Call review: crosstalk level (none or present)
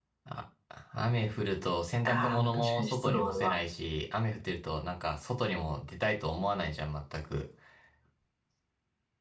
present